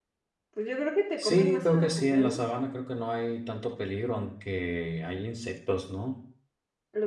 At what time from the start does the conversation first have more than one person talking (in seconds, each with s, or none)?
1.2 s